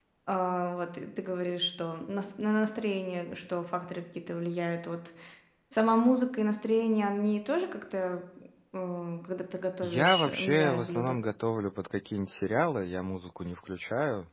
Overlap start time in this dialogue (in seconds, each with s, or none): 9.8 s